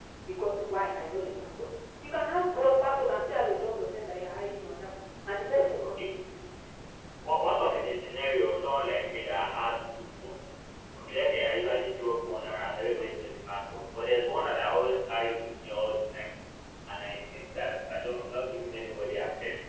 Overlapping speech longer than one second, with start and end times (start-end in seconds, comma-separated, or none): none